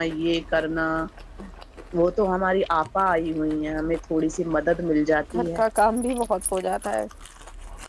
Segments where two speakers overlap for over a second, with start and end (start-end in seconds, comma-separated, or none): none